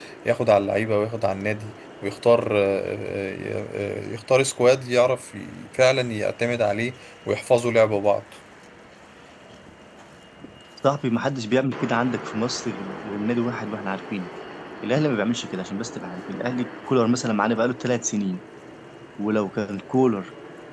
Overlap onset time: none

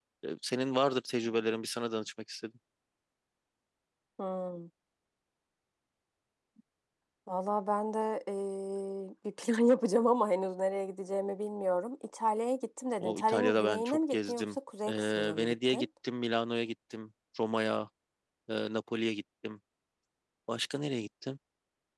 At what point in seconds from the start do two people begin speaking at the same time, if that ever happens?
13 s

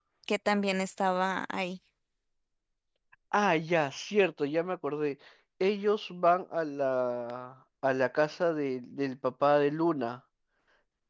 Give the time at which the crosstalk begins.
none

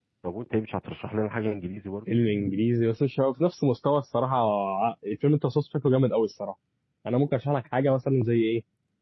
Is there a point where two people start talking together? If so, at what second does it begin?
none

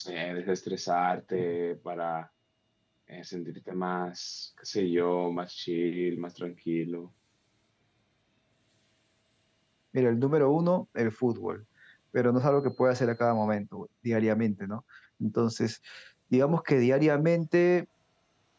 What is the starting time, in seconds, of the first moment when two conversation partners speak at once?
none

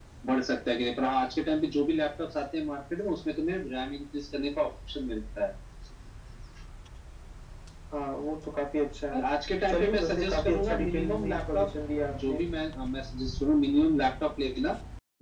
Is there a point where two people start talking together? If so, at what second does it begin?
10 s

